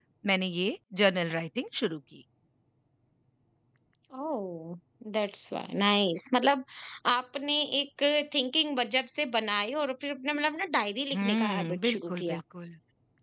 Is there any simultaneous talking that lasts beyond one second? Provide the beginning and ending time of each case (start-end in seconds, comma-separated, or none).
11.1-12.4